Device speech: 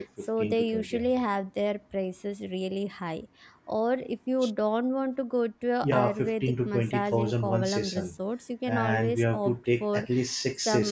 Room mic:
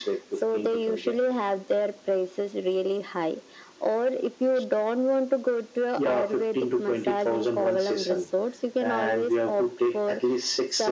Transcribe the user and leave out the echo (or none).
none